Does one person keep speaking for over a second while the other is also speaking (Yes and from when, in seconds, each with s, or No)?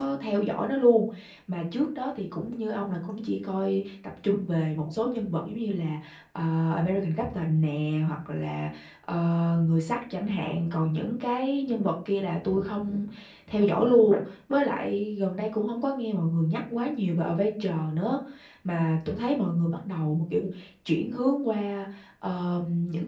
No